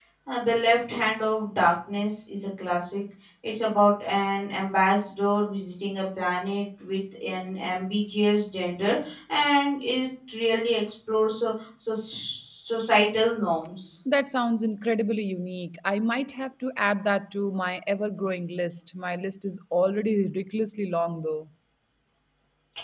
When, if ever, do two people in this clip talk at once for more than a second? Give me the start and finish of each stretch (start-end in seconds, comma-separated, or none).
none